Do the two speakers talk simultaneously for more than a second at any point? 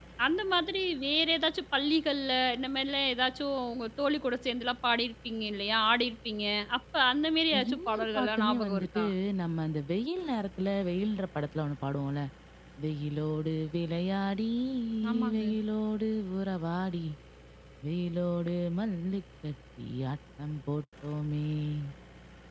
Yes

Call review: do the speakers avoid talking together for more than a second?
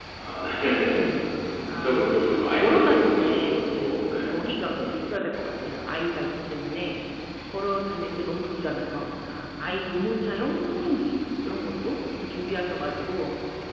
No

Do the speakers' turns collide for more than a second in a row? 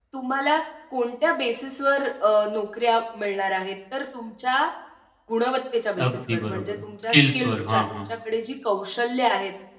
Yes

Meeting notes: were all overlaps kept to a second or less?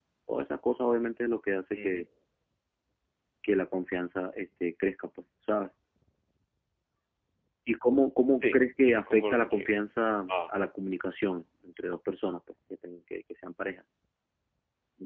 No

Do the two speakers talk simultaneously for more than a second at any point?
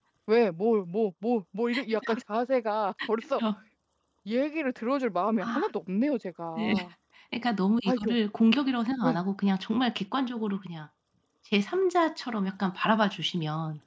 No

